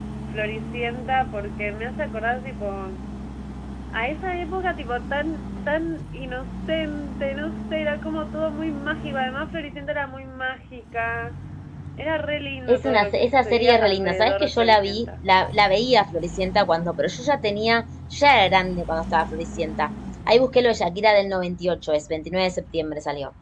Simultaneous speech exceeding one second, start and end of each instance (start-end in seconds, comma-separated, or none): 12.7-15.1